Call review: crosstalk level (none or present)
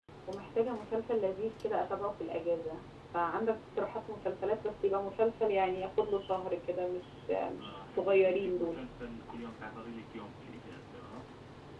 present